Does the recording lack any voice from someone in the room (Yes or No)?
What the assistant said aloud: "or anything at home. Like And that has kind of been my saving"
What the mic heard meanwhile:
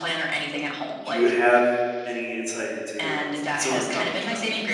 No